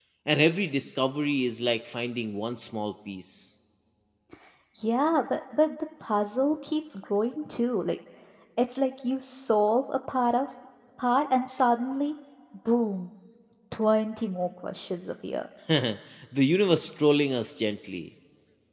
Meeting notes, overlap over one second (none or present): none